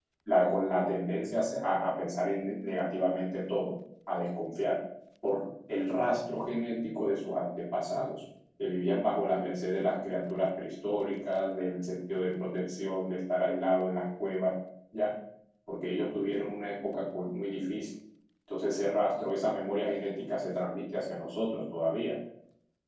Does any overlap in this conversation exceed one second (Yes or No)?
No